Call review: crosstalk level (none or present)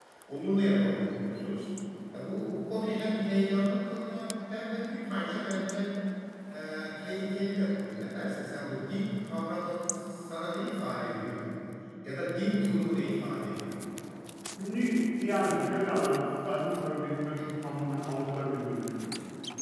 none